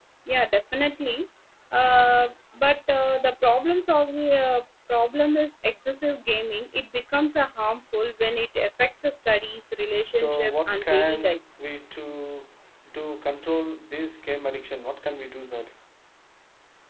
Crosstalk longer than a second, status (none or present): present